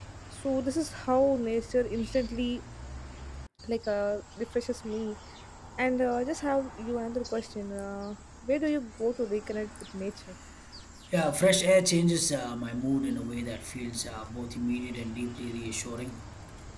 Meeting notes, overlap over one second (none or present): none